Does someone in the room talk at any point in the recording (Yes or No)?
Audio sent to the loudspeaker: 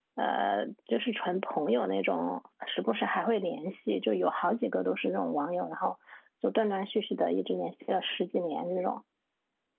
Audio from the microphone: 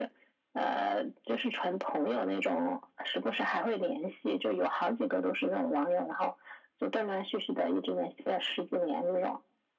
No